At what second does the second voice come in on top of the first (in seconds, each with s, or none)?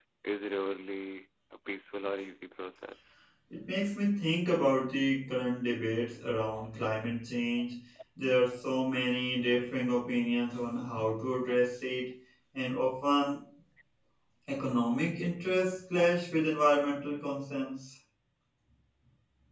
none